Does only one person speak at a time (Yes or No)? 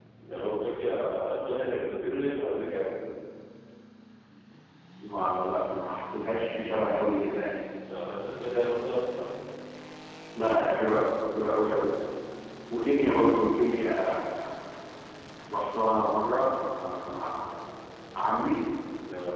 Yes